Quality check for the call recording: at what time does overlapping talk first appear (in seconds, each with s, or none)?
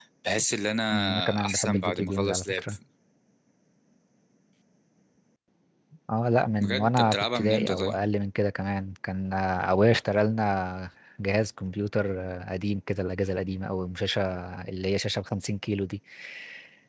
0.9 s